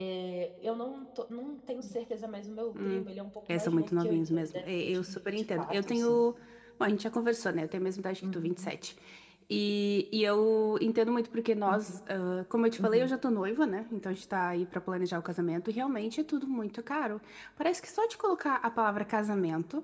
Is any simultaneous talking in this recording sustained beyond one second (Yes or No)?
Yes